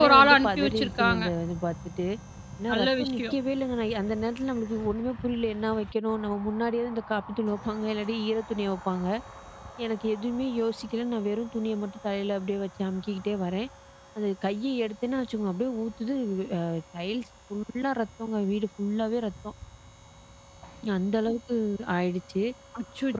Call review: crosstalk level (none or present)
present